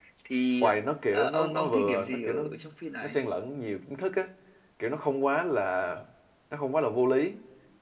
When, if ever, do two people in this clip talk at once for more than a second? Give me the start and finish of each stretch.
1.1-2.4

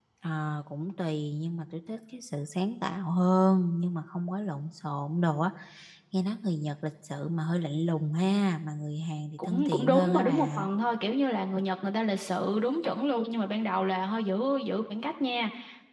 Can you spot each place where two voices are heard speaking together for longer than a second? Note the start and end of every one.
9.4-10.7

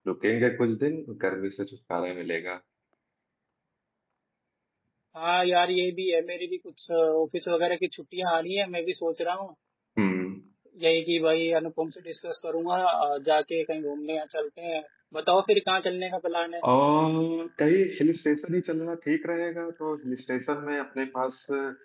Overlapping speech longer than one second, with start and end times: none

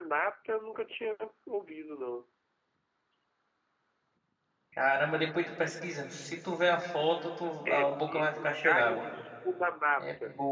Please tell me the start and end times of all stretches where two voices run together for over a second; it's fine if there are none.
7.6-9.0

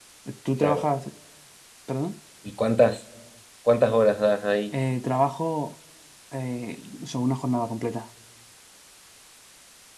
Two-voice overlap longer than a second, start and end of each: none

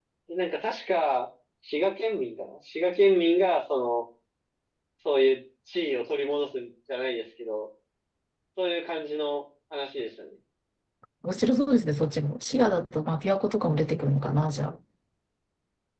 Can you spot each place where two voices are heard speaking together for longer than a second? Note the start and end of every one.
none

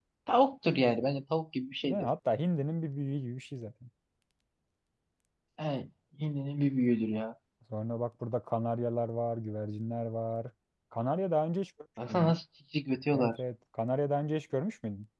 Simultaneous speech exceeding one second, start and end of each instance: none

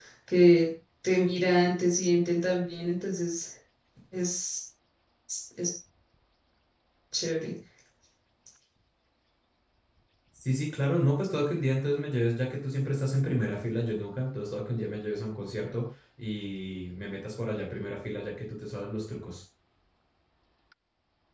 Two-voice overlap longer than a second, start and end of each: none

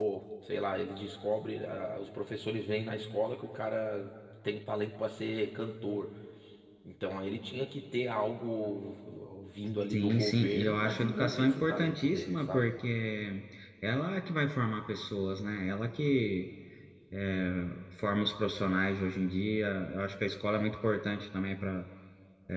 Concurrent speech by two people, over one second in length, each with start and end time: 9.9-12.6

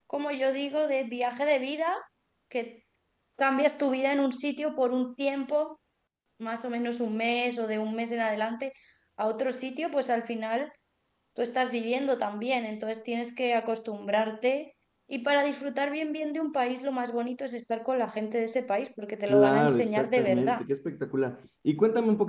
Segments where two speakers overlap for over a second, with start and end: 19.3-20.6

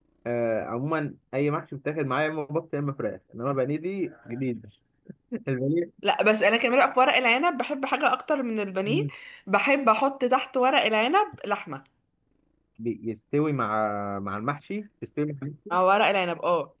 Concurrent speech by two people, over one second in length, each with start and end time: none

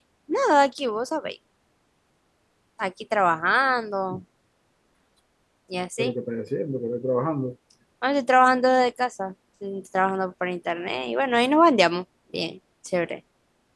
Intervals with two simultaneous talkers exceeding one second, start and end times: none

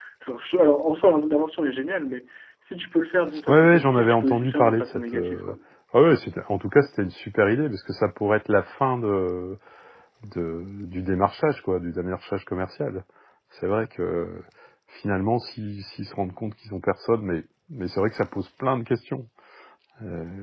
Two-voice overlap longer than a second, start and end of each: 3.5-5.5

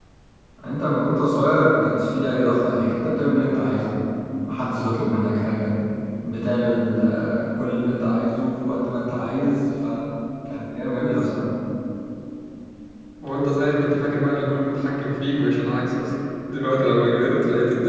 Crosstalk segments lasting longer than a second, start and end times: none

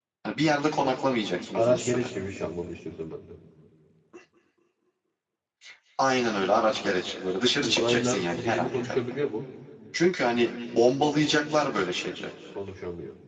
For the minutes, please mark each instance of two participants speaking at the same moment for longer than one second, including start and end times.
7.6-9.0

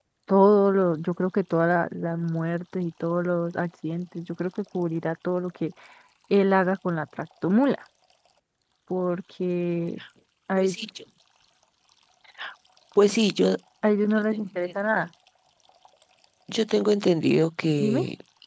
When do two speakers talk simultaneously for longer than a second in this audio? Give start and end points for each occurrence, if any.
none

